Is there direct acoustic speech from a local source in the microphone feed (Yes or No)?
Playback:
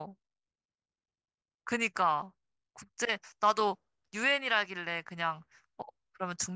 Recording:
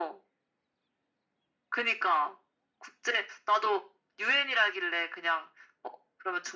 No